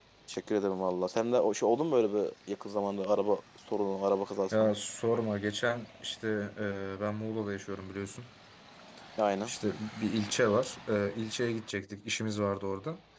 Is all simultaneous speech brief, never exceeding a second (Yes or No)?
Yes